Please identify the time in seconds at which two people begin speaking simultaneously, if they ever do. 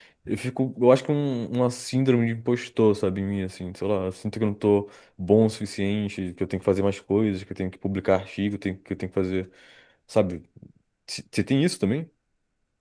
none

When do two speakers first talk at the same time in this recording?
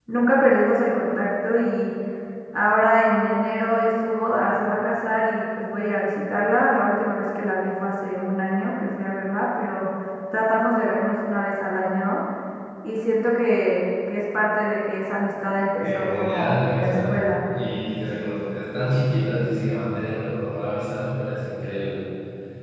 15.8 s

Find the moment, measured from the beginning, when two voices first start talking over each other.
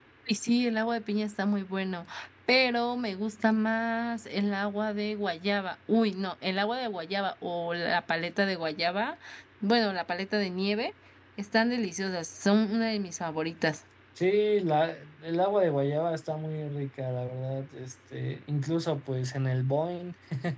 none

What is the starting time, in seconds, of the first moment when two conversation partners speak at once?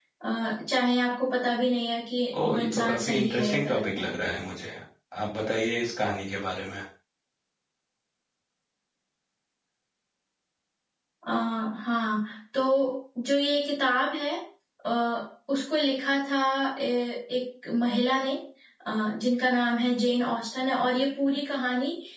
2.3 s

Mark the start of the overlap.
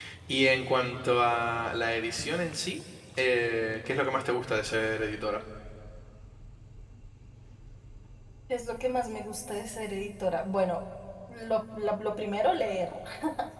none

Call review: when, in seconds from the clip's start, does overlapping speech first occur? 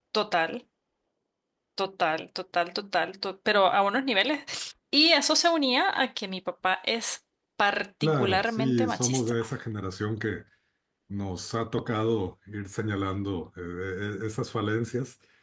8.0 s

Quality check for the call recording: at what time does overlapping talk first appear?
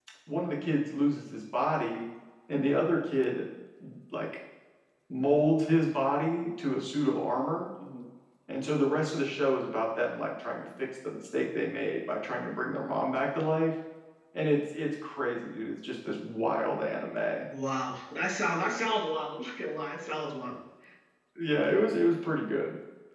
none

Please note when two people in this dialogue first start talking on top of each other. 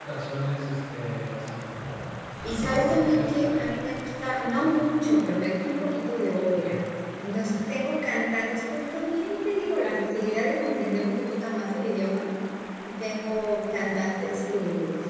2.6 s

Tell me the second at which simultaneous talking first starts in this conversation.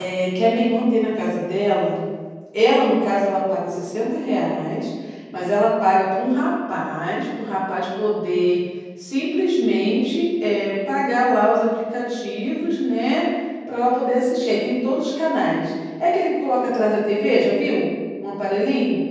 none

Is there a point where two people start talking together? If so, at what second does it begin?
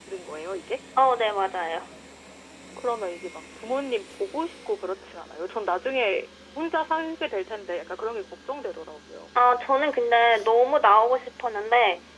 none

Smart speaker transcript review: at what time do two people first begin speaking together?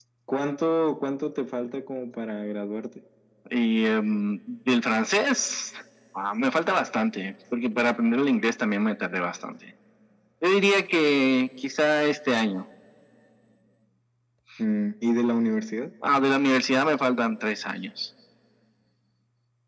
none

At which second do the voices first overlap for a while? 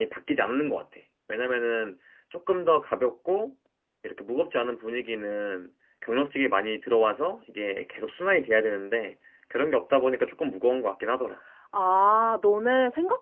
none

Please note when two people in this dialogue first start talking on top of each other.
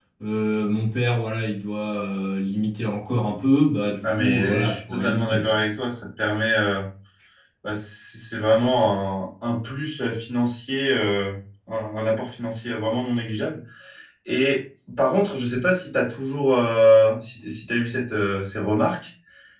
4.0 s

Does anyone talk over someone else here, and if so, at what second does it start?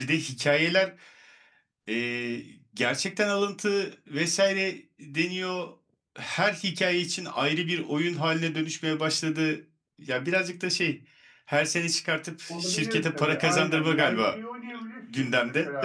12.5 s

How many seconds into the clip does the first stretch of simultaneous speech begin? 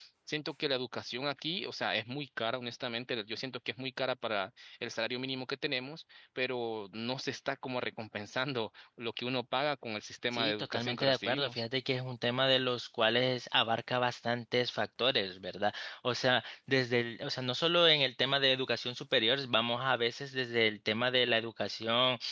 10.3 s

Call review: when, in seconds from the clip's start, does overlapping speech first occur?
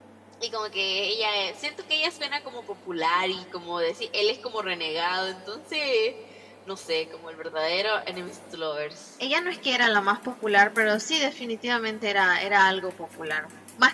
none

